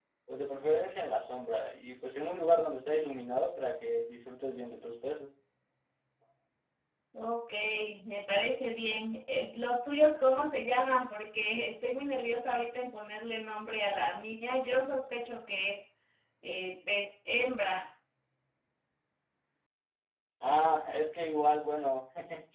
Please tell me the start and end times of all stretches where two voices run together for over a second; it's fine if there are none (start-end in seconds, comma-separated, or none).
none